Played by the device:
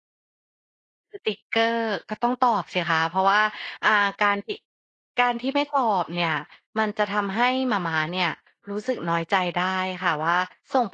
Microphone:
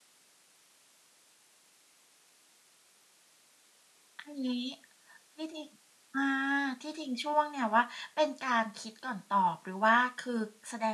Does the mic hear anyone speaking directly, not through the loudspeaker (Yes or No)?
Yes